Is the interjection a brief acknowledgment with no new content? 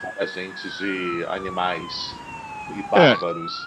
No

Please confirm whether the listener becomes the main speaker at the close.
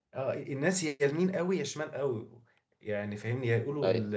No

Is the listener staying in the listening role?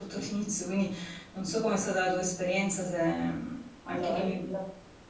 No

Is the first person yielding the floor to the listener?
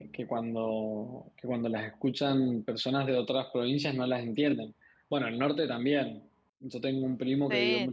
No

